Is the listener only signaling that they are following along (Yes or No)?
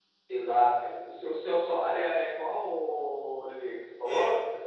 No